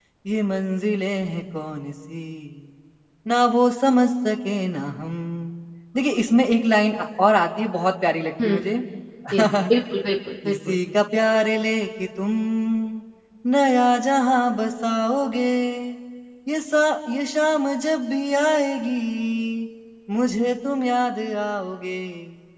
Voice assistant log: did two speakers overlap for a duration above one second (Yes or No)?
No